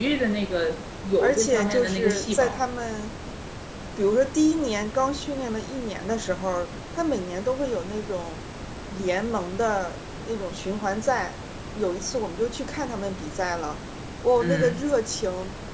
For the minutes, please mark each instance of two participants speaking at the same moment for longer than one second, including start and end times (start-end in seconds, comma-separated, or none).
1.2-2.6